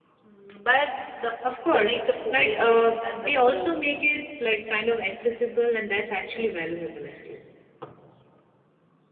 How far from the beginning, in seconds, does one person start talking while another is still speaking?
1 s

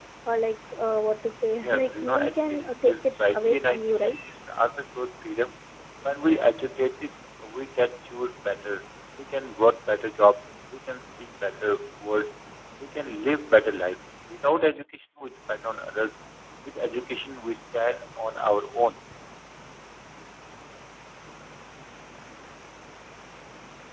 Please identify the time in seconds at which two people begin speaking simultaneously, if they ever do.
2 s

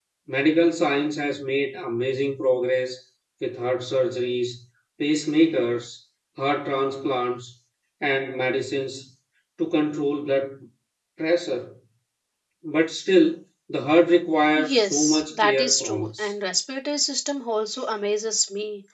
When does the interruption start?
15 s

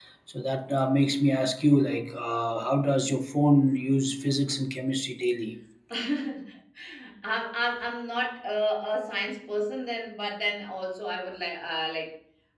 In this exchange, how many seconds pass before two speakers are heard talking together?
none

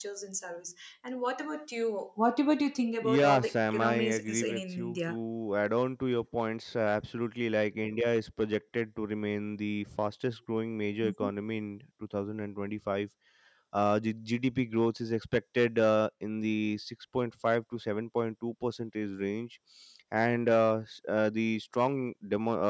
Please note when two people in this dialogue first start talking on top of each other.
3 s

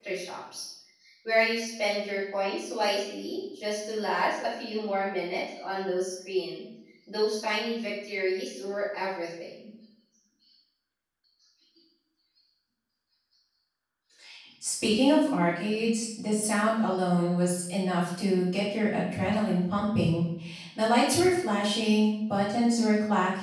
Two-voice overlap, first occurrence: none

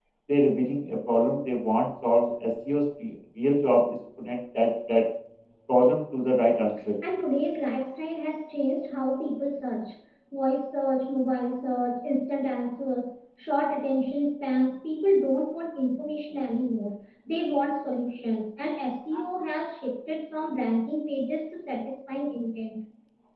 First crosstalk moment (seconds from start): none

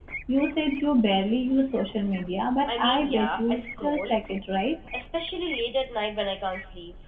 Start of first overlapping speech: 3 s

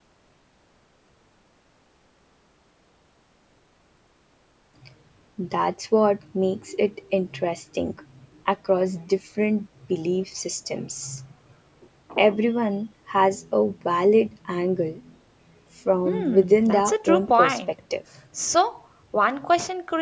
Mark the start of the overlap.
16 s

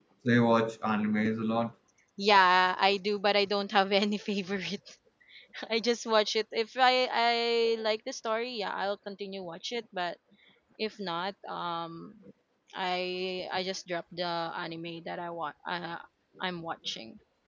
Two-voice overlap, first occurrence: none

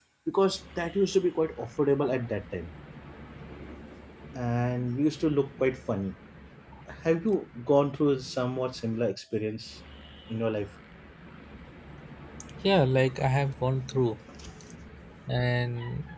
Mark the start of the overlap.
none

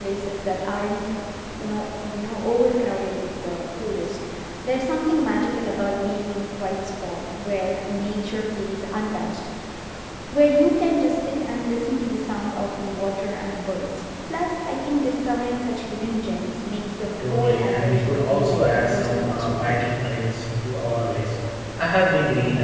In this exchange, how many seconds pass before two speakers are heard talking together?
17 s

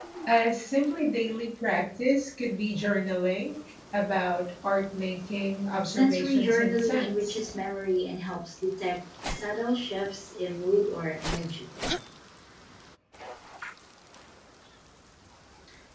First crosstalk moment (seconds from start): 6 s

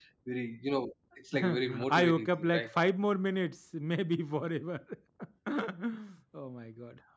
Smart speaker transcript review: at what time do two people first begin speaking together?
1 s

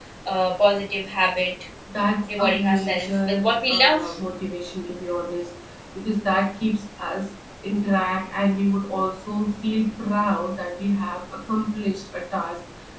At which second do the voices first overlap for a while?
2 s

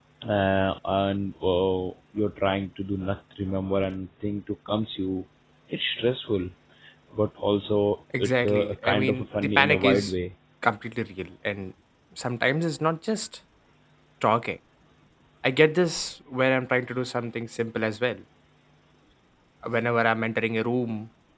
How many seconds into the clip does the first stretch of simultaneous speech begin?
8 s

